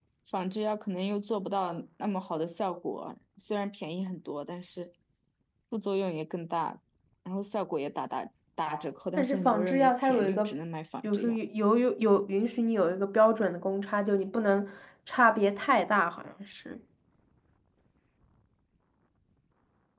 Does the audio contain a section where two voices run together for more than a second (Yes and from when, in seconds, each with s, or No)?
Yes, from 9.2 s